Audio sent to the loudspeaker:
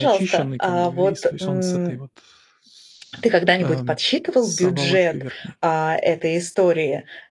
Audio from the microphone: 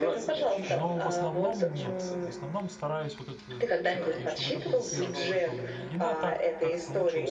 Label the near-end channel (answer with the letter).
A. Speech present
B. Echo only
A